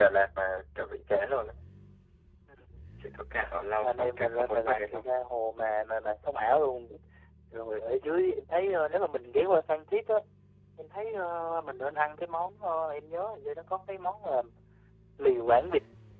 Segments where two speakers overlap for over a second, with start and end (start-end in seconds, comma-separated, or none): 3.8-5.0